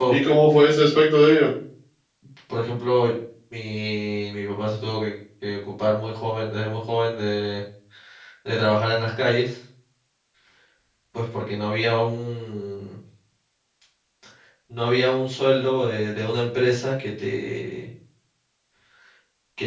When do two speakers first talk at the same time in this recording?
none

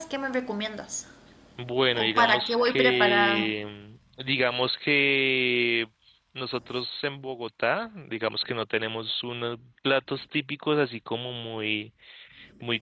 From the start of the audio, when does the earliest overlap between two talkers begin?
1.9 s

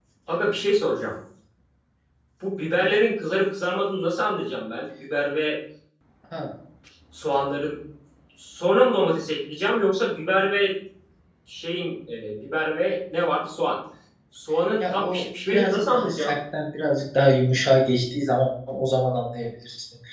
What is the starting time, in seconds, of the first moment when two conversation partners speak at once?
14.9 s

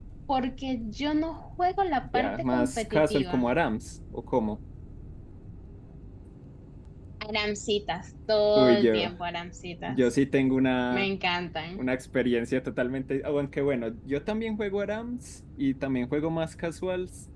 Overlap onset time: 2.1 s

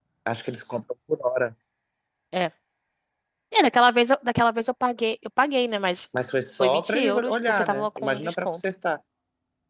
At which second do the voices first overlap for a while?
6.6 s

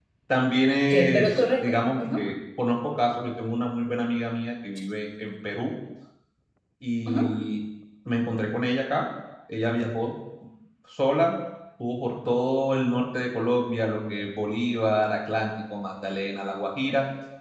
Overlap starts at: 0.9 s

